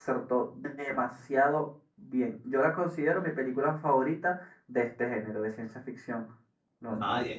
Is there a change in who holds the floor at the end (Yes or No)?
Yes